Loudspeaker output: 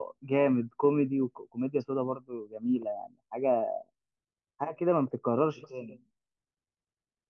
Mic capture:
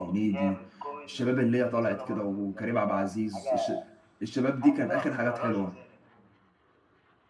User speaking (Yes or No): Yes